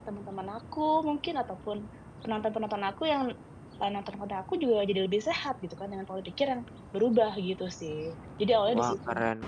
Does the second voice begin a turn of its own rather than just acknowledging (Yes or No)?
Yes